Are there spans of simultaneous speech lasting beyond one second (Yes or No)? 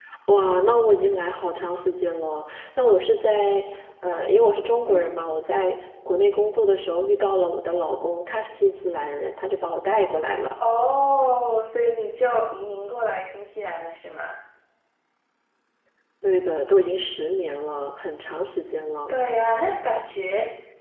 No